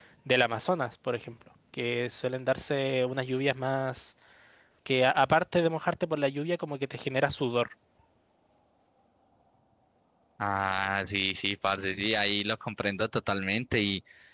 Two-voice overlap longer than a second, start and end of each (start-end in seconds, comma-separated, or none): none